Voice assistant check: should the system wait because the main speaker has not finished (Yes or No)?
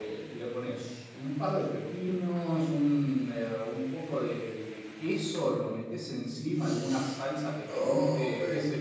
Yes